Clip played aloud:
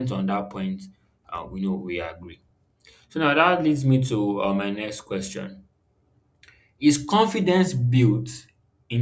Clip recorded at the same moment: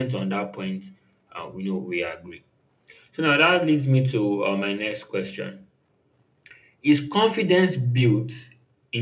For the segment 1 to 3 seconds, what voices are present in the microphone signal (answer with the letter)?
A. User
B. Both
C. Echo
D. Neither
C